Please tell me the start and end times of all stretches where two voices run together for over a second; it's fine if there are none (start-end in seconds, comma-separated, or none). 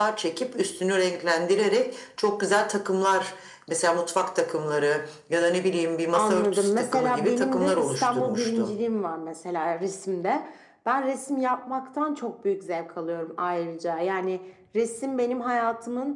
6.1-8.8